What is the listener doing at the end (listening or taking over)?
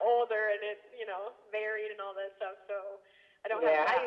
taking over